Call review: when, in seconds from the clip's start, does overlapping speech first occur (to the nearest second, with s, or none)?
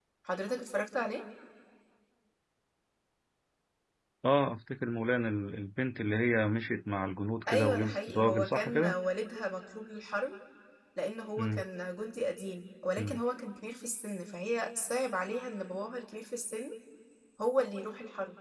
7 s